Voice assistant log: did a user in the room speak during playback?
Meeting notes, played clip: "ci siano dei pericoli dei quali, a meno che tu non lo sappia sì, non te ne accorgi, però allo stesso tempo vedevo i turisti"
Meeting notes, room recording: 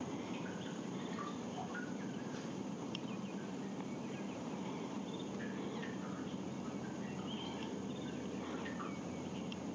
No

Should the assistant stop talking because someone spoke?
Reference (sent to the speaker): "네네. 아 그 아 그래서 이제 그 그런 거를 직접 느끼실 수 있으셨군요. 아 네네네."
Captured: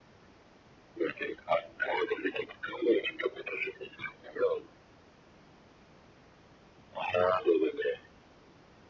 Yes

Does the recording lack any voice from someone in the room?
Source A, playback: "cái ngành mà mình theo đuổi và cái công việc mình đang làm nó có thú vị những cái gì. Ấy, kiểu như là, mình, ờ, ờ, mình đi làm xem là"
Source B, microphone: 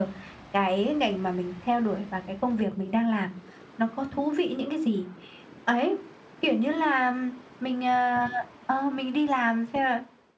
Yes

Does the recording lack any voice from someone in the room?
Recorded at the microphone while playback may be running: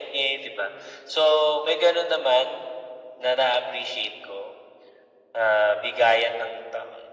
Yes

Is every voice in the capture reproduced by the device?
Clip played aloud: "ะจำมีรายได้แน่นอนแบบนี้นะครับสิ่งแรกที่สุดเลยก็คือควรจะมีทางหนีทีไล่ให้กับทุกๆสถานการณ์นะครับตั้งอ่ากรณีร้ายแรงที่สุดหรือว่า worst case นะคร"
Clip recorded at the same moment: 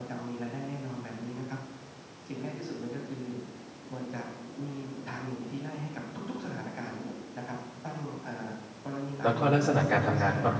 No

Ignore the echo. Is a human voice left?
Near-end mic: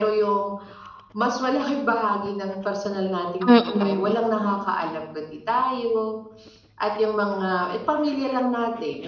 Yes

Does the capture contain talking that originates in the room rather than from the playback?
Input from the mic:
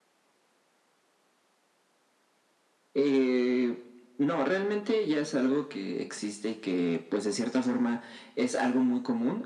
No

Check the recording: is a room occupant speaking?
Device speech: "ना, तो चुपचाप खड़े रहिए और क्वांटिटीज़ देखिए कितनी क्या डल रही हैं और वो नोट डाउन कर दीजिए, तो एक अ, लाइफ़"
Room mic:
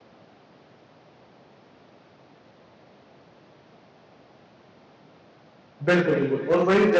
Yes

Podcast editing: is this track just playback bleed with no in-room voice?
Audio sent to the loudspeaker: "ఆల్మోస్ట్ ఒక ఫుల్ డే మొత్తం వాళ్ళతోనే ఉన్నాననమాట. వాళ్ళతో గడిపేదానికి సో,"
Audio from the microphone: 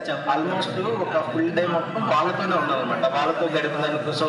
No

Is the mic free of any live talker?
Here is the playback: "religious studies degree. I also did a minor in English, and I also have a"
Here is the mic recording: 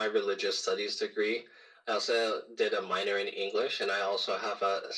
Yes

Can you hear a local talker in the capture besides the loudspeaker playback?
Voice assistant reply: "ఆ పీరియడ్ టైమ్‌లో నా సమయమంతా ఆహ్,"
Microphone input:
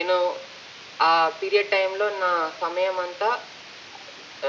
No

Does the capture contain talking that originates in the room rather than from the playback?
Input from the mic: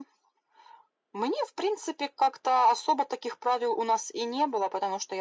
No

